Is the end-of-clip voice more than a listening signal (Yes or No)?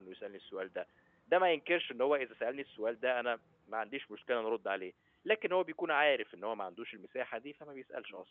Yes